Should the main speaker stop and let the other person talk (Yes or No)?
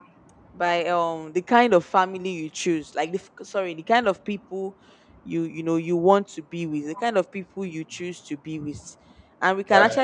No